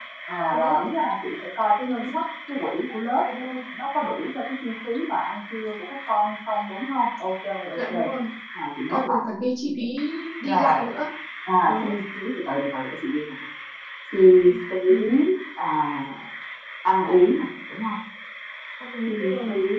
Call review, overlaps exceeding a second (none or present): none